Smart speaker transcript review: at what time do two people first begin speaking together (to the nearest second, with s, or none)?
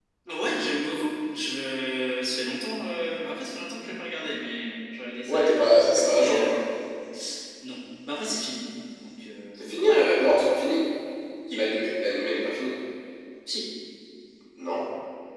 5 s